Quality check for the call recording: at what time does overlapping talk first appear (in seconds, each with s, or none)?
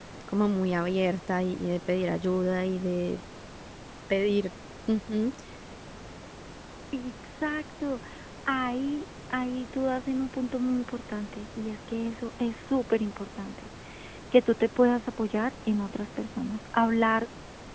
none